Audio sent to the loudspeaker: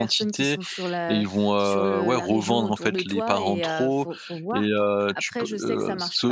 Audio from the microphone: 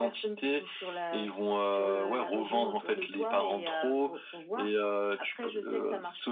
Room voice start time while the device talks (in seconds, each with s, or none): none